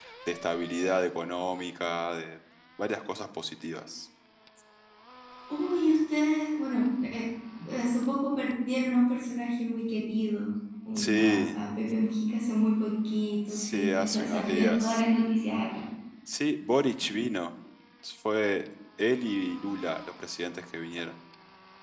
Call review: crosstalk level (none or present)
present